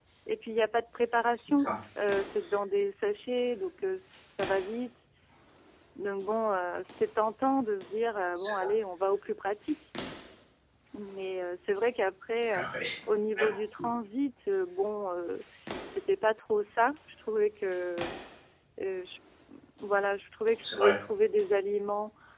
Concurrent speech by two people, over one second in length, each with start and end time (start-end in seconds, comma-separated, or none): none